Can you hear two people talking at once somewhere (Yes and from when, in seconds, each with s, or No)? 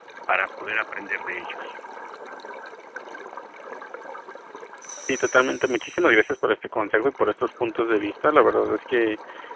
No